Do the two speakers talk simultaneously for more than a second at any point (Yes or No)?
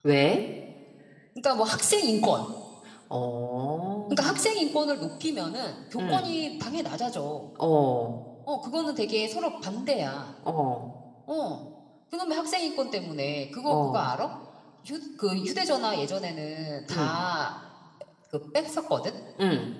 No